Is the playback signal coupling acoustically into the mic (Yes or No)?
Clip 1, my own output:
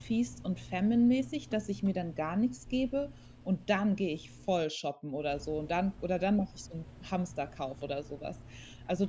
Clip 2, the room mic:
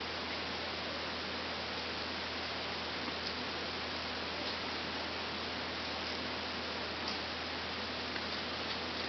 No